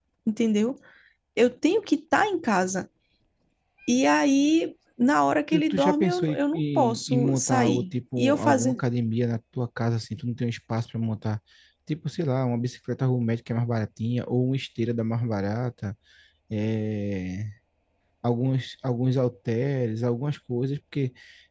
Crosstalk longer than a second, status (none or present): present